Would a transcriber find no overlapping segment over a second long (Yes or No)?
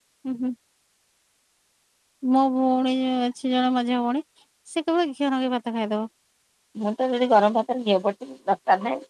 Yes